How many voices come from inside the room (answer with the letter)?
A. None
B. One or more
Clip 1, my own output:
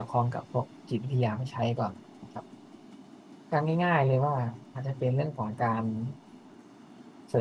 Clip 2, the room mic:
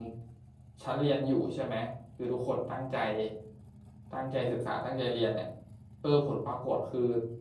B